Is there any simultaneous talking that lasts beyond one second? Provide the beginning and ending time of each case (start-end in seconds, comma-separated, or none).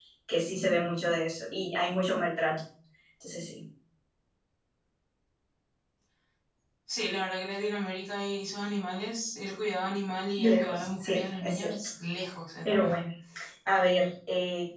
10.4-11.8